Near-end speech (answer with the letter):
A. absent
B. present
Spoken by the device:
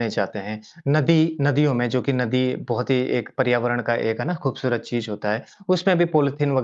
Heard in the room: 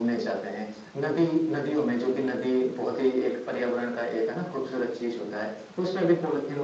A